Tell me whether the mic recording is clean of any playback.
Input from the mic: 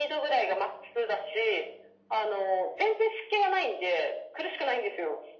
No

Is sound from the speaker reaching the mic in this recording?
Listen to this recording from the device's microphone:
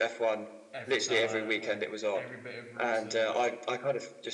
Yes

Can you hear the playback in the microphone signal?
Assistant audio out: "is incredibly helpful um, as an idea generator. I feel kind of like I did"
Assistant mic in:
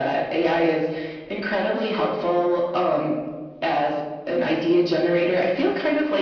Yes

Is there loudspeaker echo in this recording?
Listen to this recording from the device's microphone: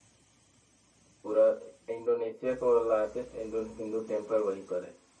No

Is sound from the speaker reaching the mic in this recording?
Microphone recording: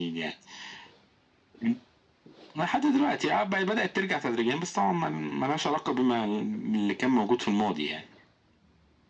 Yes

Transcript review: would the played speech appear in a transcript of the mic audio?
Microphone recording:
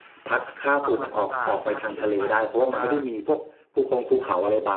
Yes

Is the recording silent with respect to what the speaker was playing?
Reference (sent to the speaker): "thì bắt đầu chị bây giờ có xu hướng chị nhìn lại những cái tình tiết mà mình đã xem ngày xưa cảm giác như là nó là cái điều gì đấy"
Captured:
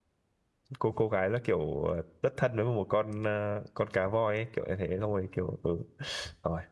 Yes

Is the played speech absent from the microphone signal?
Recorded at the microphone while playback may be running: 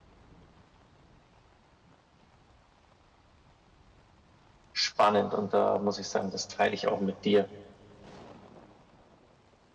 Yes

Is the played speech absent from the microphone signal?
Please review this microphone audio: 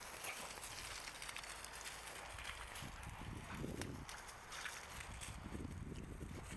Yes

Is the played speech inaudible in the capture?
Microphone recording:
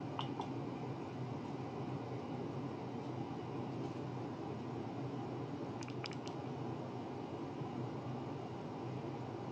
Yes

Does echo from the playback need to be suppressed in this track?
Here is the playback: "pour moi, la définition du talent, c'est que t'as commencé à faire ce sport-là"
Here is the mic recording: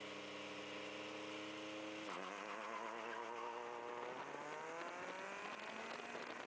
No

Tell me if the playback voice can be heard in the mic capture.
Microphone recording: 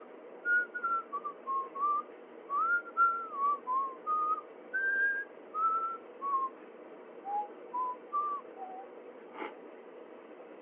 No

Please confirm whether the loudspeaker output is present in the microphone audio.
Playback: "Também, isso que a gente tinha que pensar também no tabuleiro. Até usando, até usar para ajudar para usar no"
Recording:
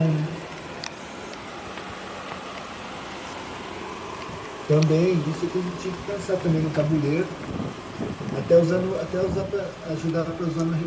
Yes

